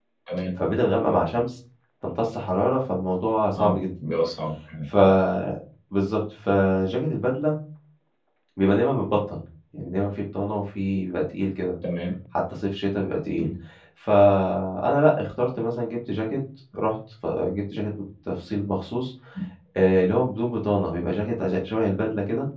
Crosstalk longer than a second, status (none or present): none